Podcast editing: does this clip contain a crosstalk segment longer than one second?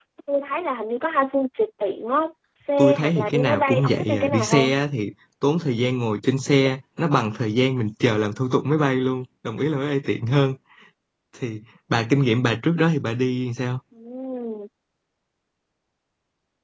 Yes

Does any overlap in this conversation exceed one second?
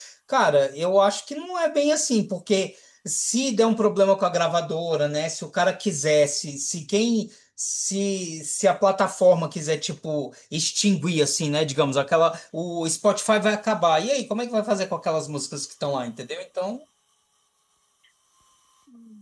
No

